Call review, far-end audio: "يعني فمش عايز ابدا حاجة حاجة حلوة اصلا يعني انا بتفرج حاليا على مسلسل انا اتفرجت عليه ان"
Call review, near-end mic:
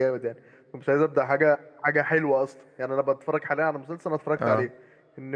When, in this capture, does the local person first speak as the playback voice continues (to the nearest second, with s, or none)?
4 s